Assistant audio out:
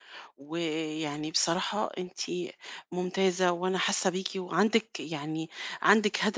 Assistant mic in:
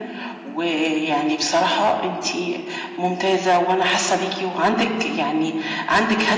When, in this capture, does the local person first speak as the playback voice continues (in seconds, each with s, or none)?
none